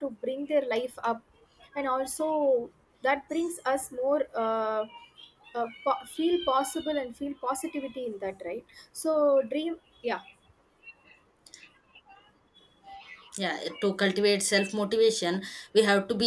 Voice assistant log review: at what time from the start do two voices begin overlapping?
none

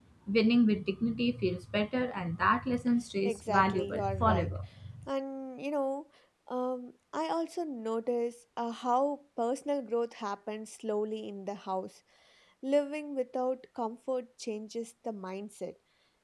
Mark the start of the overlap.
3 s

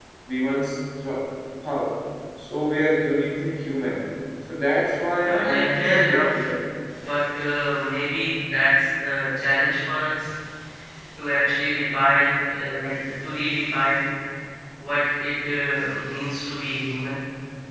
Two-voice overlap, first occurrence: 5 s

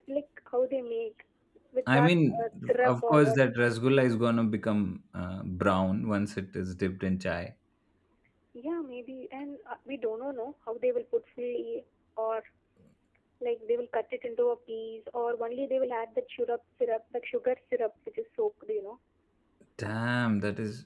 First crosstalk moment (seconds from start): 2 s

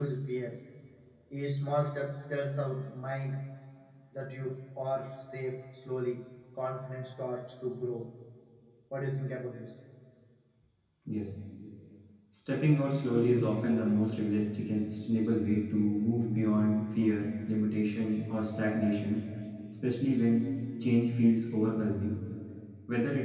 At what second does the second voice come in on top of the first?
none

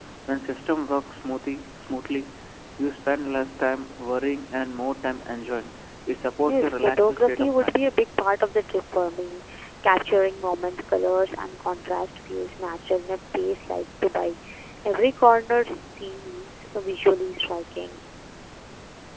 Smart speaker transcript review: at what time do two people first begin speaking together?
6 s

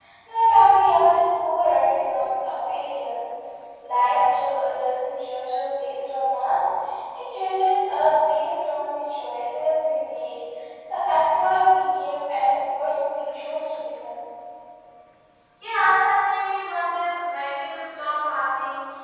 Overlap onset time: none

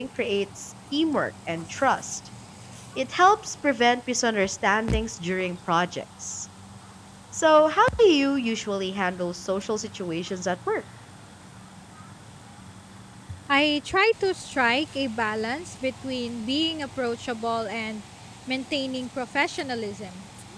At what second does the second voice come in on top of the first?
none

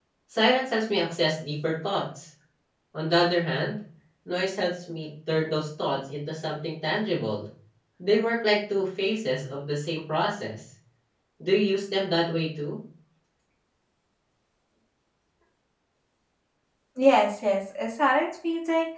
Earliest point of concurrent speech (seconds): none

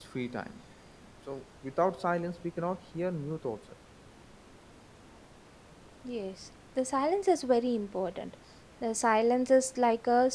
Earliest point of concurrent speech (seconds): none

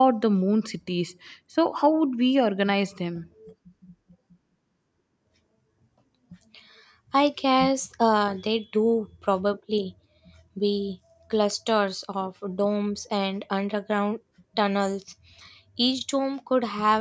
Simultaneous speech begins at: none

